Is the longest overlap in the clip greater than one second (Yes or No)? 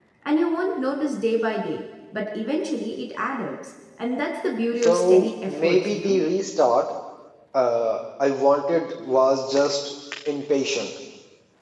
Yes